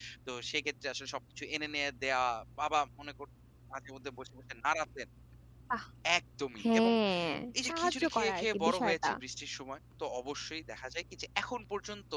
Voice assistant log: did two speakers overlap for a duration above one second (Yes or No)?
Yes